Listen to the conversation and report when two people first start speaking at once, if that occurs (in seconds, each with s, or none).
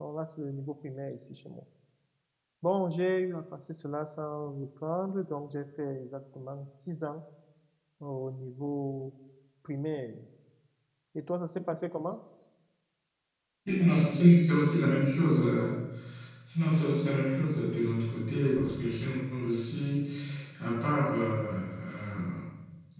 none